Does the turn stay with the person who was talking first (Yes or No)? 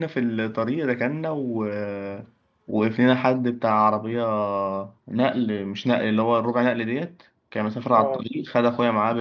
Yes